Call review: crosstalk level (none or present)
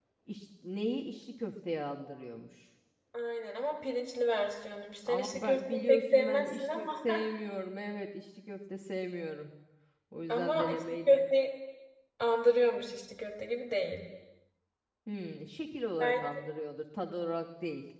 present